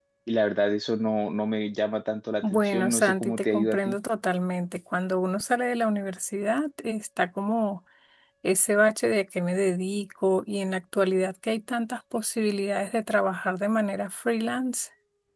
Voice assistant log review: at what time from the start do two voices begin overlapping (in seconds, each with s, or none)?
2.4 s